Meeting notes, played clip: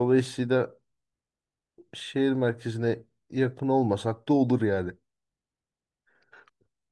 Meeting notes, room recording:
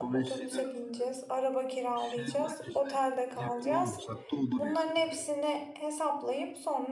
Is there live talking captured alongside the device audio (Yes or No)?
Yes